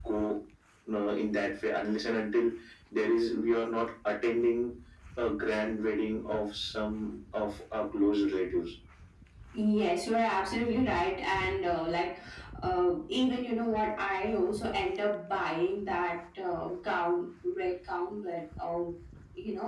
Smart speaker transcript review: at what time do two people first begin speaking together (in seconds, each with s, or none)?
none